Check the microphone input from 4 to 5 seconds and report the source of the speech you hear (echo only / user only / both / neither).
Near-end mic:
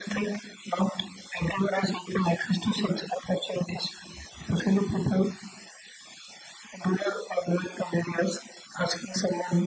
echo only